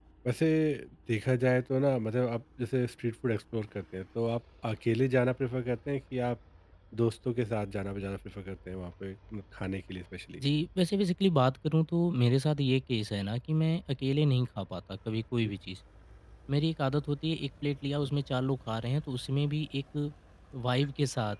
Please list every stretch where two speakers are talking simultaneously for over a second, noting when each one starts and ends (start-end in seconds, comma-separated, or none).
none